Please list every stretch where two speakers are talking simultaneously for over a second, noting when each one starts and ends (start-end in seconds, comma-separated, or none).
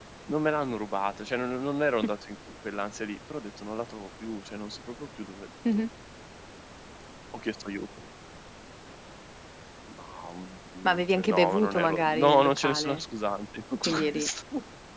10.8-13.0